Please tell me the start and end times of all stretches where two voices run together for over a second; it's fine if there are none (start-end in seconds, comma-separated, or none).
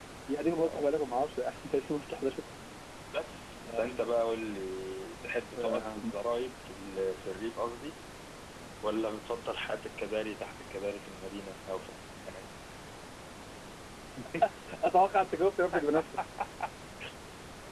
none